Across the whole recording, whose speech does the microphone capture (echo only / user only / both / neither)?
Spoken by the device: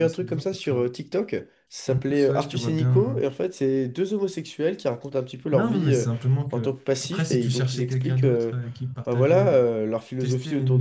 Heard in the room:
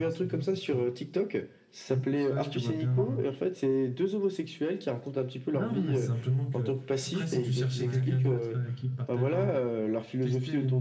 both